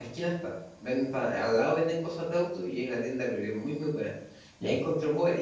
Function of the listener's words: listening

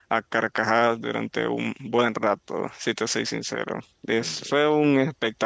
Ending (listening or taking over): listening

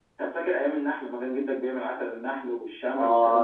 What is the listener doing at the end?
taking over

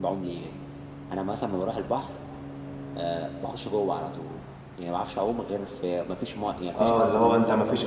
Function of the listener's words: taking over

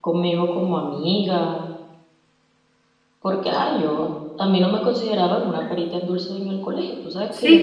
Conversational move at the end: taking over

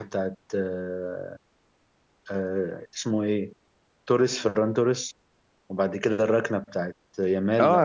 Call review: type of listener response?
taking over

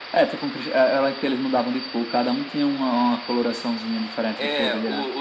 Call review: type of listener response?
taking over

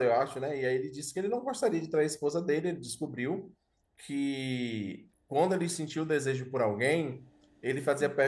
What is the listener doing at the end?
listening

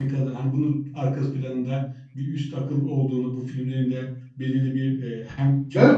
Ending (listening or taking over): taking over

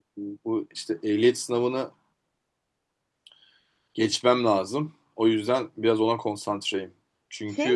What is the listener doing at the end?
taking over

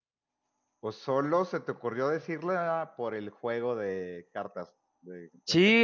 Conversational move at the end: taking over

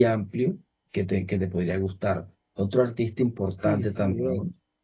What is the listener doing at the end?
taking over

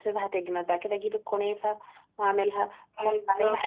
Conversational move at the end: listening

